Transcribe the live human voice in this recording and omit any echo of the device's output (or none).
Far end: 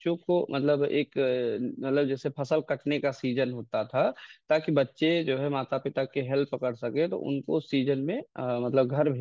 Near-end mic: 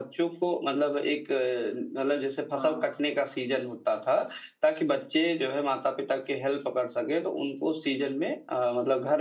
हाँ